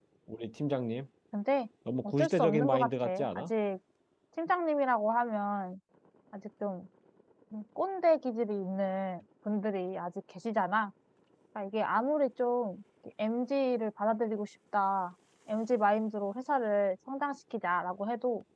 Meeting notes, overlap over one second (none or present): present